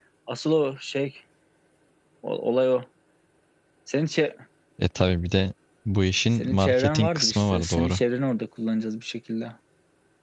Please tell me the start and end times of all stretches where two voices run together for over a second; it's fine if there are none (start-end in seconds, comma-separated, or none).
6.3-8.0